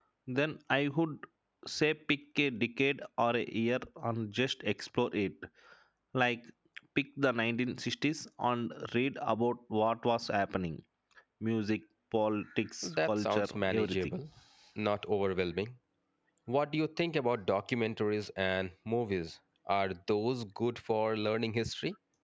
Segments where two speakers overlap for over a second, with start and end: 12.8-14.1

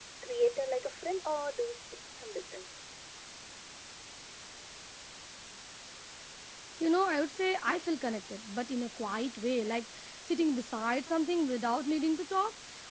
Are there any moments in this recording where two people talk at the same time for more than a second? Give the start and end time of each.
none

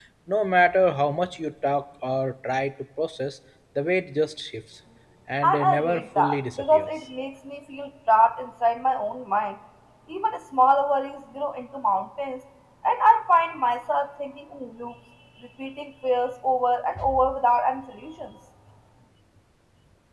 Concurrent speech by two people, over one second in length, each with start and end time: 5.4-6.9

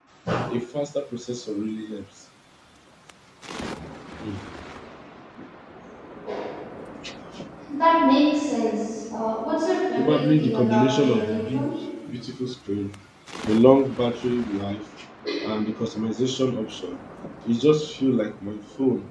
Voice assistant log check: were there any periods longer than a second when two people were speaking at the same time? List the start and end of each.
10.0-11.6

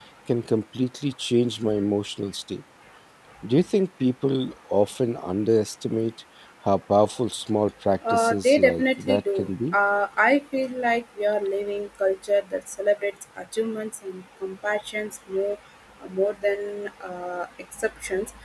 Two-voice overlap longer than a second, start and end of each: 8.1-9.8

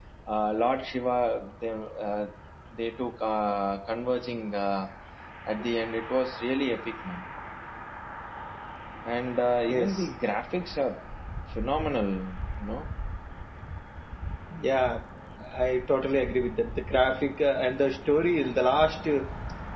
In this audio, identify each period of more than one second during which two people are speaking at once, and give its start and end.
none

